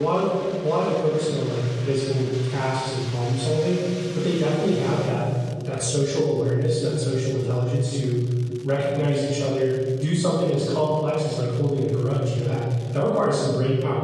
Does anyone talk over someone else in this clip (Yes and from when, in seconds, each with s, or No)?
No